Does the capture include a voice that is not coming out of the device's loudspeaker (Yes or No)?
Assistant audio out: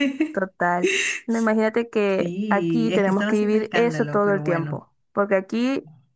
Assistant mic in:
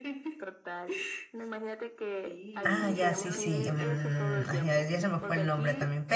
Yes